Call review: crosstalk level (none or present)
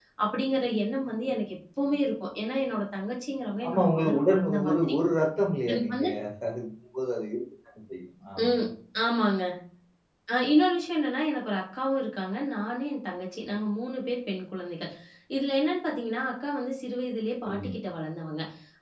present